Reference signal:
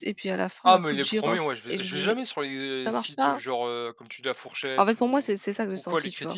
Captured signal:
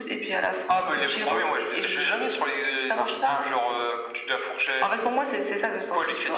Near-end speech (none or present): none